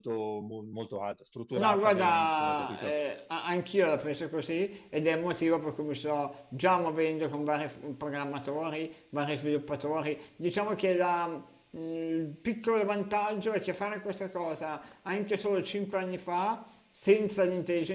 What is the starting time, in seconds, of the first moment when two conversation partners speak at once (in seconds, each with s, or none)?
1.6 s